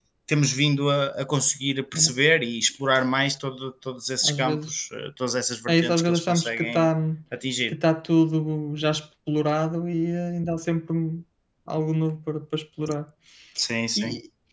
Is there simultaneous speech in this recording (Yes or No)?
Yes